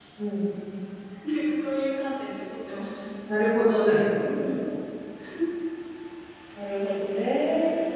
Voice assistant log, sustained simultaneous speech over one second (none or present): none